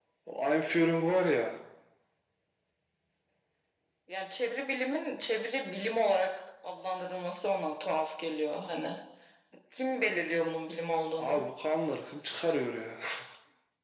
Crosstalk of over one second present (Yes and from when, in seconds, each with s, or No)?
No